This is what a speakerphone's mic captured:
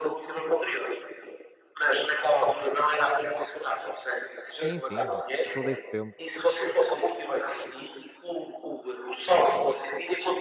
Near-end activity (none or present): present